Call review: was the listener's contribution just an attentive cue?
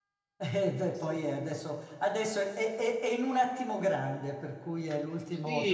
No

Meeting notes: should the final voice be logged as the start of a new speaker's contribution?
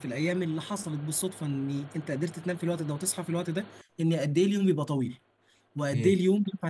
No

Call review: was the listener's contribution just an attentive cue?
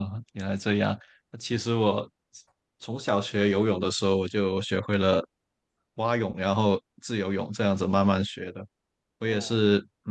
Yes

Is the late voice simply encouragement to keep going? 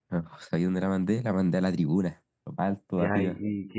No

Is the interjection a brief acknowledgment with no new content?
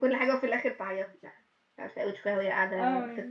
Yes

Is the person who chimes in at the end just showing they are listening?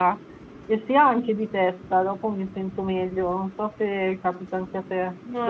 No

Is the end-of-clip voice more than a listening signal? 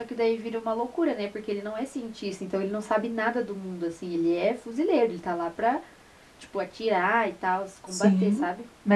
Yes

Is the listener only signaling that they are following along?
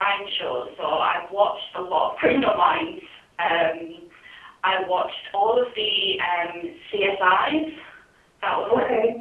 Yes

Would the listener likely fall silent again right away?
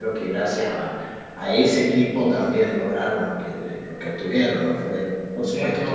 No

